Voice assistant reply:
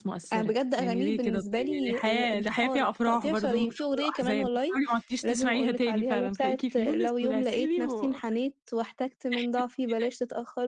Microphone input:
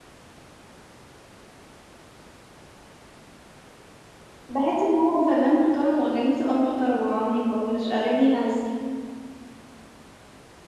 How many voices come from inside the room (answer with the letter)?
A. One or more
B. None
A